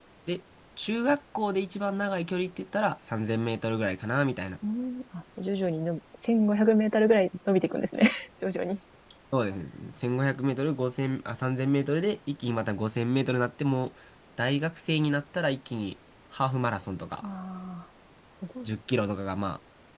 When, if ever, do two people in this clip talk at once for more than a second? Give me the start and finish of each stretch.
none

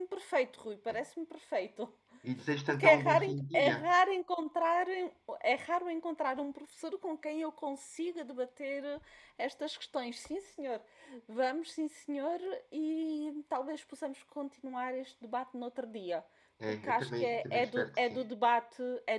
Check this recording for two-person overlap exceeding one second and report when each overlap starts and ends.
2.7-3.9, 16.8-18.2

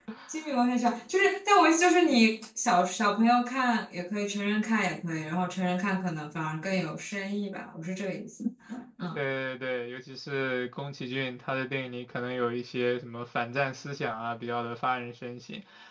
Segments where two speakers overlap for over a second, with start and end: none

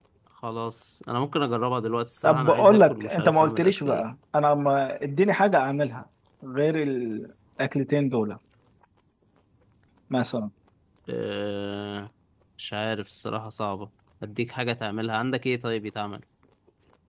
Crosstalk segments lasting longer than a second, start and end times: 2.2-4.0

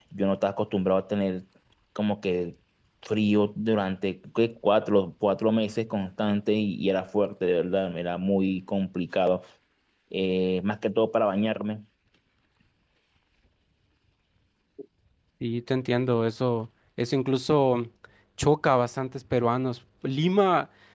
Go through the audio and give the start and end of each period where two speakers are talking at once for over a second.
none

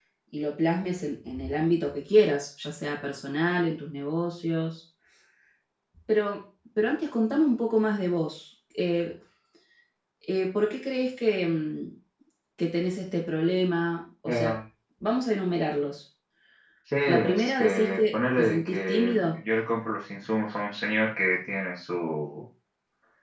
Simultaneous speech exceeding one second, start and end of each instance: 17.1-19.4

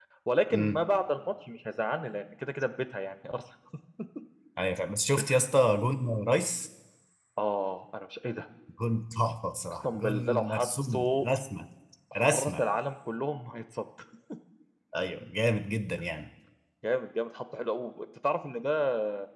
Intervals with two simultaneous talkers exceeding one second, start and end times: 9.9-11.2

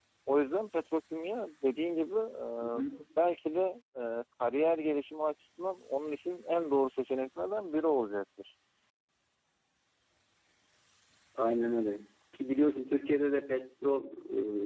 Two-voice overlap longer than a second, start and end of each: none

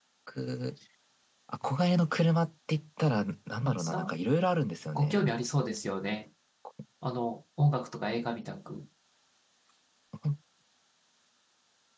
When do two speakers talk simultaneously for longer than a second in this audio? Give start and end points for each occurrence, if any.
none

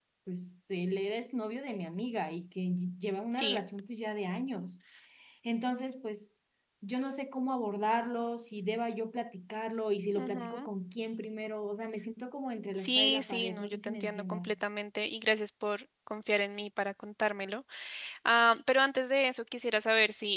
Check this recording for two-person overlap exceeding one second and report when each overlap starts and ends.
12.8-14.5

